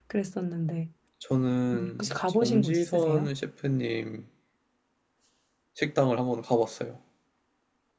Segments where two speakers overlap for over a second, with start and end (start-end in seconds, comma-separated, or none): 1.7-3.3